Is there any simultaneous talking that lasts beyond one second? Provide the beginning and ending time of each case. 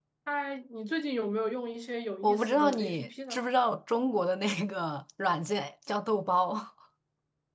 2.2-3.5

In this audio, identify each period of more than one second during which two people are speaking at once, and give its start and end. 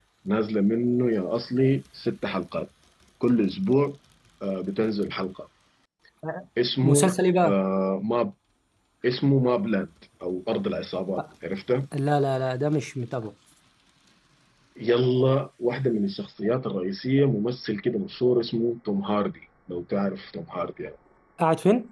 none

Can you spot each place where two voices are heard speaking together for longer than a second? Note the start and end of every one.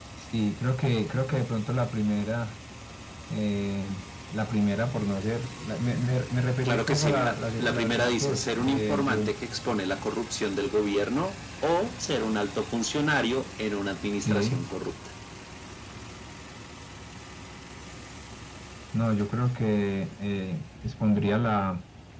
6.7-9.2

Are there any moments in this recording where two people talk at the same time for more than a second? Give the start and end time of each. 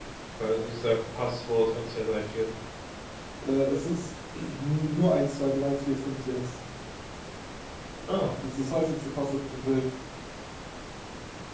none

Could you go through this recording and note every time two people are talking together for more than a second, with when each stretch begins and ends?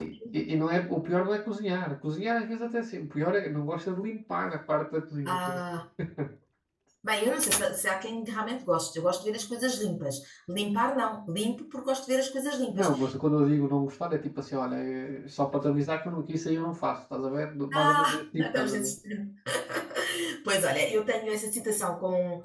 17.7-18.9

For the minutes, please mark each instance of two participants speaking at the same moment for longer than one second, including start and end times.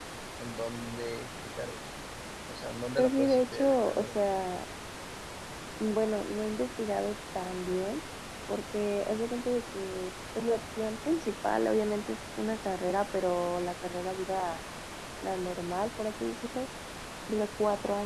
3.0-4.2

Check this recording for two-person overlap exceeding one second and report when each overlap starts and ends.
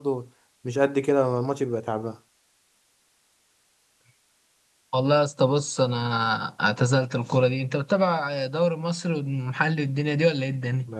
none

